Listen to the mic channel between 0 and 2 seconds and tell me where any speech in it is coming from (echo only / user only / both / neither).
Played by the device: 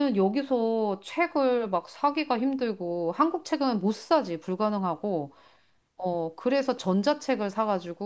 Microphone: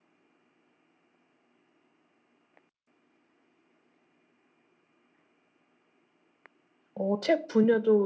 neither